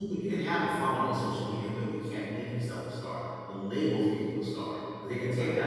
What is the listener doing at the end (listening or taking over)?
listening